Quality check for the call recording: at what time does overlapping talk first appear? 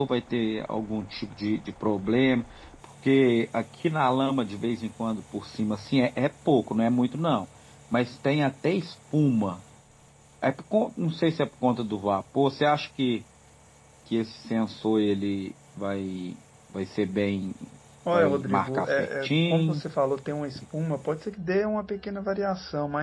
18.1 s

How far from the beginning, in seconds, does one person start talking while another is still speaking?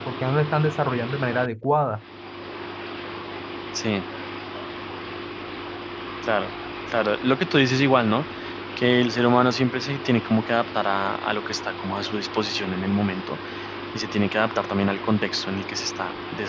none

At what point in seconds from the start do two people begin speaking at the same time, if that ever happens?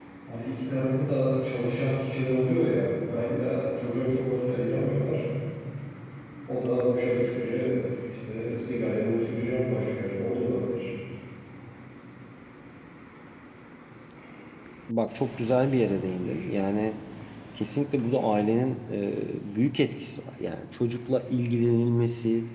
none

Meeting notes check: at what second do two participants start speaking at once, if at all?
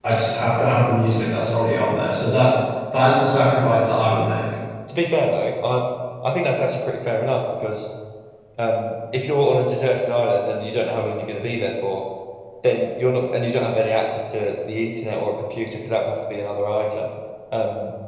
none

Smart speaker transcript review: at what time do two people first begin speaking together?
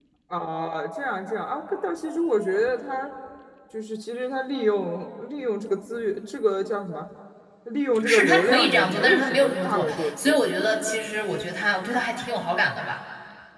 7.9 s

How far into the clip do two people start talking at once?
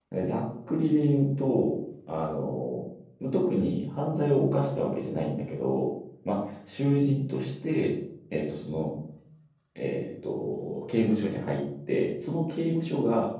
none

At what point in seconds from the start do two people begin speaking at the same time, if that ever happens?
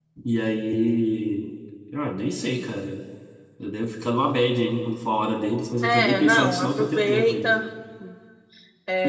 5.8 s

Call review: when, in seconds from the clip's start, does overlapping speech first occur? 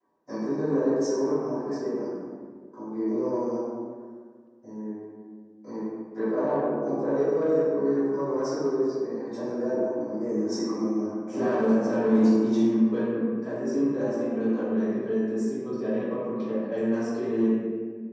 11.3 s

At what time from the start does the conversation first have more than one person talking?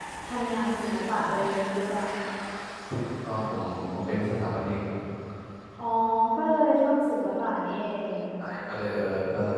none

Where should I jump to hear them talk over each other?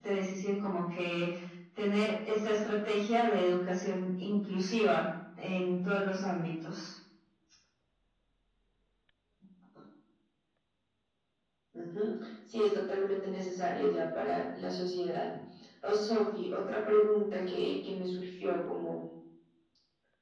none

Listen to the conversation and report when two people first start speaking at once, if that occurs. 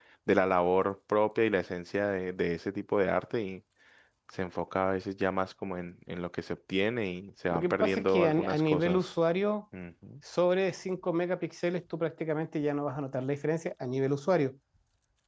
7.5 s

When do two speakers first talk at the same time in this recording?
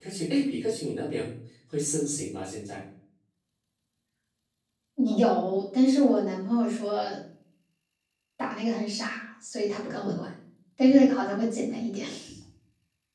none

